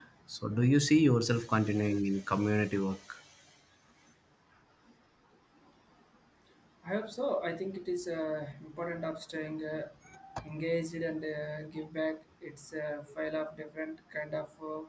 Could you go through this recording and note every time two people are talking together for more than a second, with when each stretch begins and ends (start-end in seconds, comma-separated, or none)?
none